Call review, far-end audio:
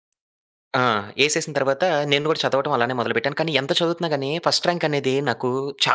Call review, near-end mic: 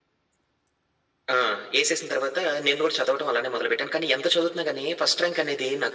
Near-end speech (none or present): none